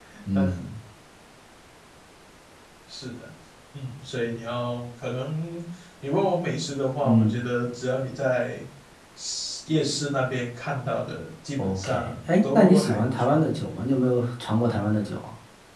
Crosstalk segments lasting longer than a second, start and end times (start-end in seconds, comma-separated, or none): 11.6-13.5